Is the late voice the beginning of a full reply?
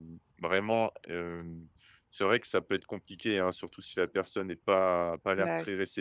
No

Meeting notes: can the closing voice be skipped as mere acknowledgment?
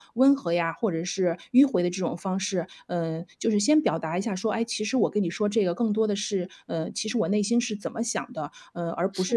Yes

